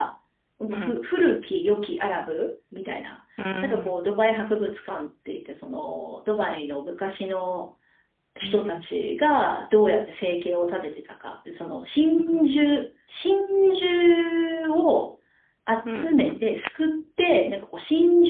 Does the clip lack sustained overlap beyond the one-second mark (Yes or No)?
Yes